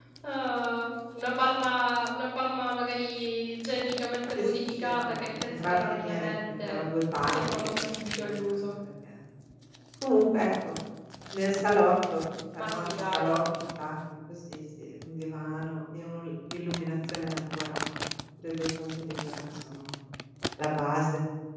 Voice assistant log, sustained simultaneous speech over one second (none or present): present